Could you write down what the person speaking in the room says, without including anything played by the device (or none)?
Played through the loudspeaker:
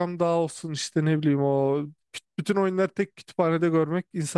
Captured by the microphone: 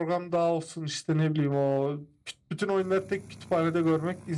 none